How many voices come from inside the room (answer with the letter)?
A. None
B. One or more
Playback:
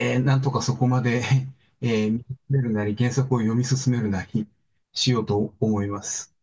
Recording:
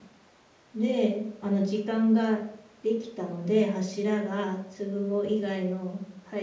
B